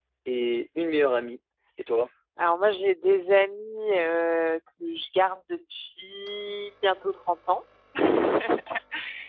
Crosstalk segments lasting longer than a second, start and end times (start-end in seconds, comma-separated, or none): none